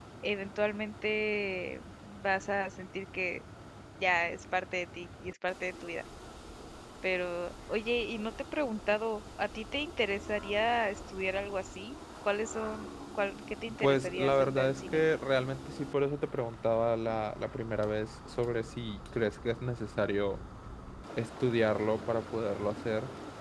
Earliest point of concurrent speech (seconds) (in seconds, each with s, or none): 13.7 s